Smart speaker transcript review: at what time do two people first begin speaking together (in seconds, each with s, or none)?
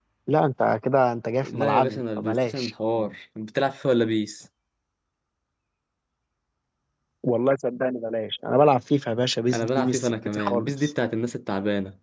1.4 s